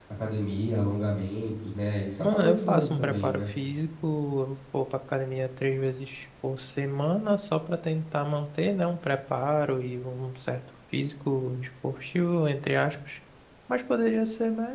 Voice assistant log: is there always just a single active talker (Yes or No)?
No